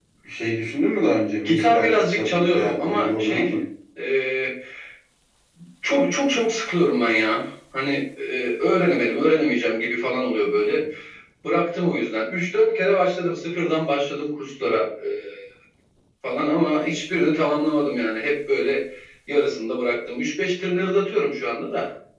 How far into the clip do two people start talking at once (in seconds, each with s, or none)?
1.4 s